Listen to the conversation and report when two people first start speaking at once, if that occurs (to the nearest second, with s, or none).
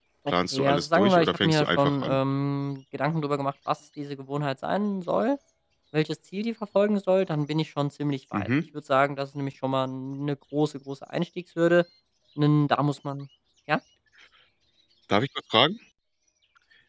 1 s